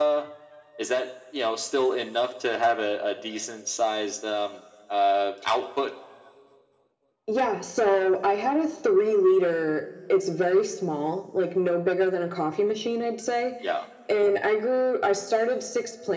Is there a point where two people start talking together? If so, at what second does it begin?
none

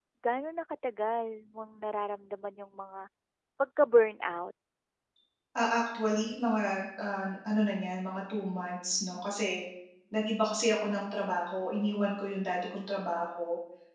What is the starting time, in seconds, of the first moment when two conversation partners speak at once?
none

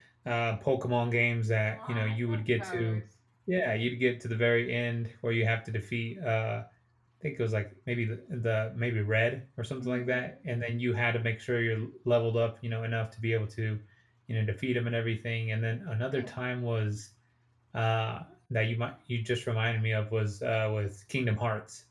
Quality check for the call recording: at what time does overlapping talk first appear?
2 s

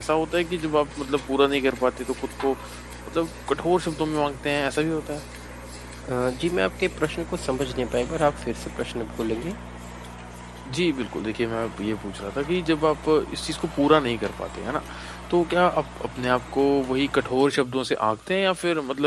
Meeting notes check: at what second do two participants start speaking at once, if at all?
none

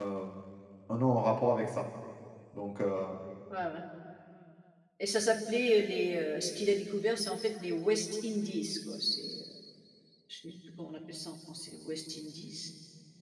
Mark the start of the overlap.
none

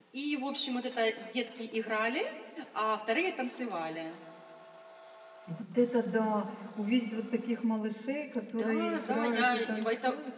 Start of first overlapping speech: 9 s

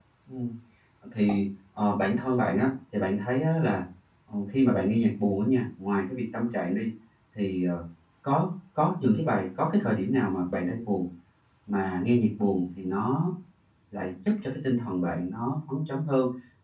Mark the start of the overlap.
none

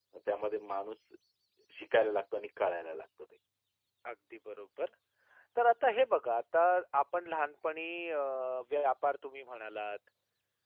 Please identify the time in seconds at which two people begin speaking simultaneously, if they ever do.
none

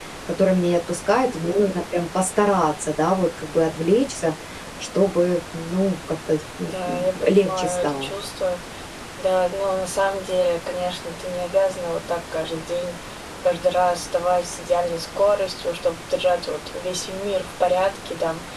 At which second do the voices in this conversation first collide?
7 s

